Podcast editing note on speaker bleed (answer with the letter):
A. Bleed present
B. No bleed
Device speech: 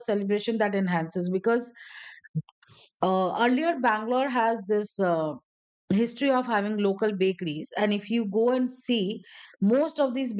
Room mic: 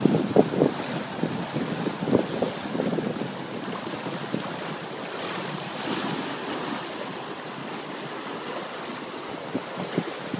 B